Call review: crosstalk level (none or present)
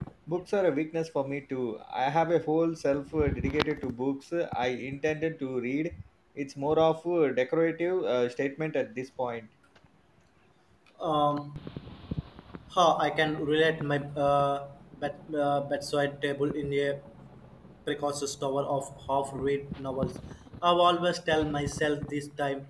none